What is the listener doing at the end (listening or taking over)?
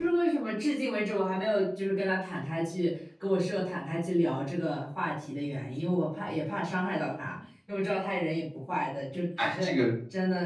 taking over